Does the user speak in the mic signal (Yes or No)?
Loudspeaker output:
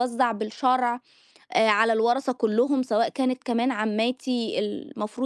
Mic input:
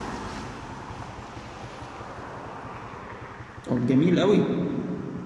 Yes